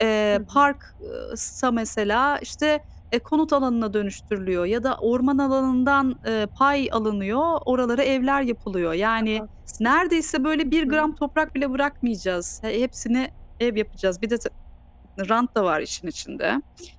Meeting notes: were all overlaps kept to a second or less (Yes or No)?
Yes